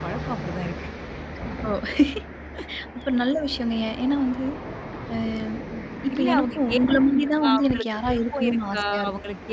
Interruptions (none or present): present